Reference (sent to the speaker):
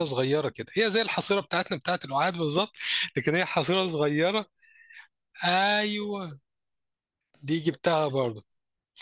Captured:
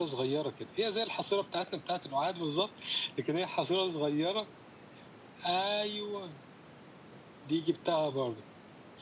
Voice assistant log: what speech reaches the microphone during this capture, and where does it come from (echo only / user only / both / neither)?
echo only